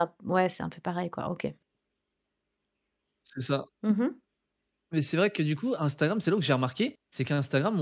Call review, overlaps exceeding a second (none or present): none